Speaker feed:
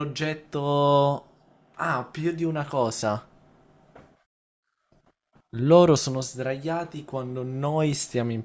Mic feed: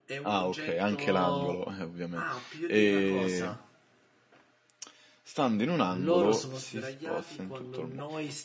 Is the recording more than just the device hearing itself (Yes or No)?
Yes